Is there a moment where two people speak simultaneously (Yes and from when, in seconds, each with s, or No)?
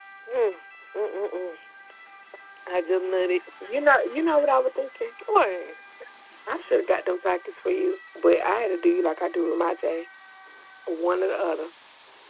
No